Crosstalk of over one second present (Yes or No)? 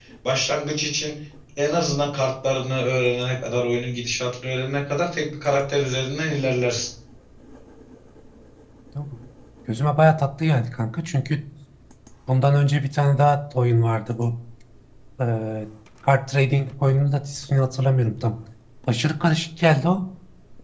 No